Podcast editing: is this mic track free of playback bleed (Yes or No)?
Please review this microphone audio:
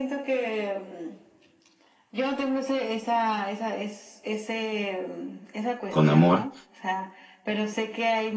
No